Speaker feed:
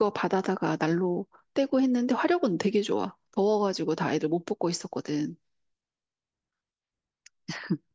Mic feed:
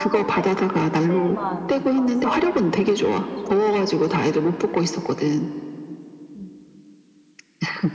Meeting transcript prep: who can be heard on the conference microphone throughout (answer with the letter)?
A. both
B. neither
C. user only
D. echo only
A